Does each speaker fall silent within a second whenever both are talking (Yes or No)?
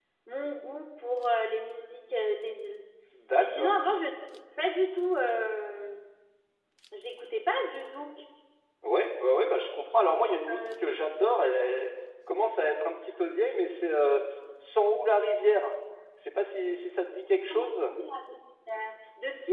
Yes